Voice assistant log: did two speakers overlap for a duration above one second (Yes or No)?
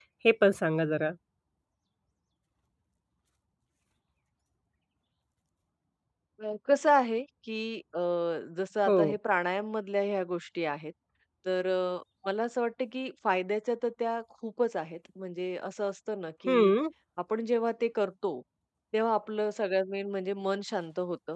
No